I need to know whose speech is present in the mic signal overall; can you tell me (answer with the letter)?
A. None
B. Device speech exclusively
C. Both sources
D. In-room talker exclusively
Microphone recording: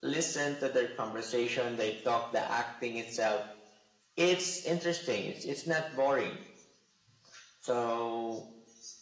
B